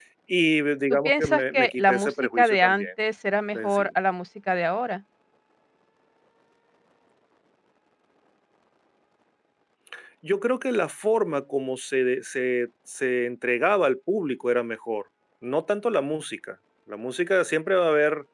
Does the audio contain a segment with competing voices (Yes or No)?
Yes